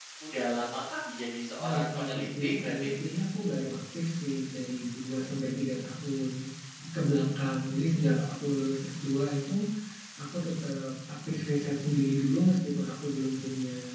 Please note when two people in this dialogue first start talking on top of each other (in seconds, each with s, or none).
1.6 s